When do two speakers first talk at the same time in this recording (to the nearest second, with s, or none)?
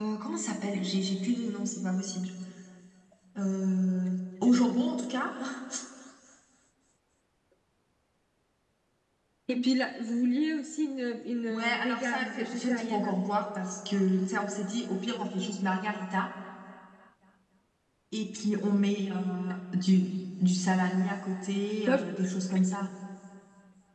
11 s